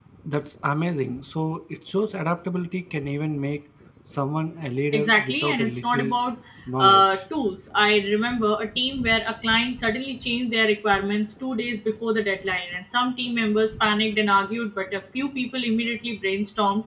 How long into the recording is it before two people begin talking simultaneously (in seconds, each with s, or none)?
4.9 s